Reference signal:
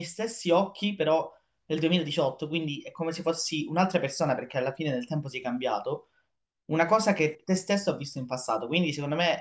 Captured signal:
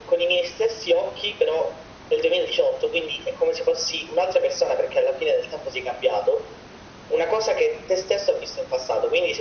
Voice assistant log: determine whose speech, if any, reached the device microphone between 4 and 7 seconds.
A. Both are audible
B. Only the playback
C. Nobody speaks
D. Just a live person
B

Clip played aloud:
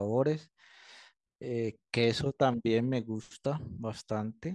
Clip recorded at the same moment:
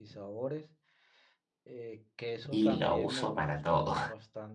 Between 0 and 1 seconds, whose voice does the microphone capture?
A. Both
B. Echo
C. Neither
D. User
B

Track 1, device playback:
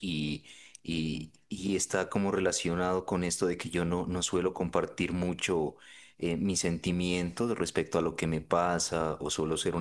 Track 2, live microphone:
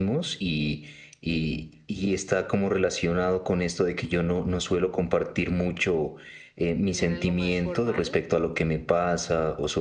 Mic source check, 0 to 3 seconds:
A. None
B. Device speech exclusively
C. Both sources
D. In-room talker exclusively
B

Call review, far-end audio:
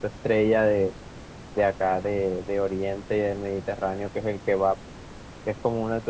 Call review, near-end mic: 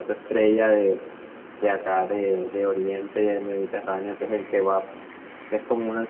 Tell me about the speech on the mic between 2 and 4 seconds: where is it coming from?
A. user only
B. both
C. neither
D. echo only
D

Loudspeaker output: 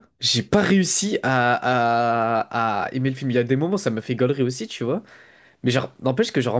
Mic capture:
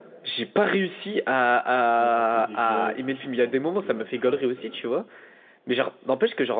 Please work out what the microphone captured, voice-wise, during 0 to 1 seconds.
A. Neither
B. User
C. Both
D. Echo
D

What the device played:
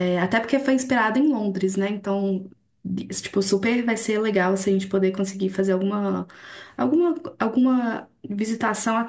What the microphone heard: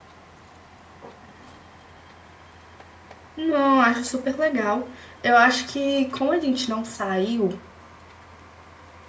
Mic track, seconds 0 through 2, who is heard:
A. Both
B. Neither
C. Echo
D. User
B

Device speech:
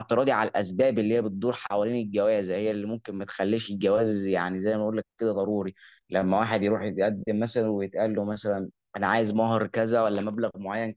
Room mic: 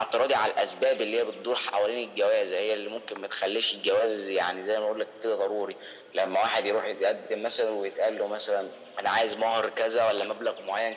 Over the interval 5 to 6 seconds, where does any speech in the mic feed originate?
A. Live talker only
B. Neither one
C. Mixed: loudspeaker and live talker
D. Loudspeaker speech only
D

